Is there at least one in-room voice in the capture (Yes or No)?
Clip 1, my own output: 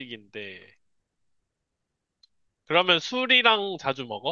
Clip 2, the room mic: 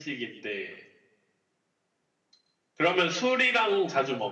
No